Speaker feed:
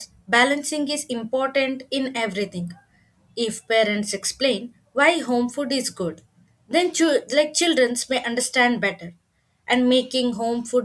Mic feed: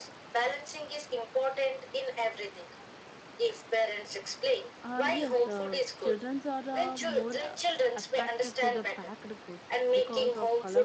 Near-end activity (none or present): present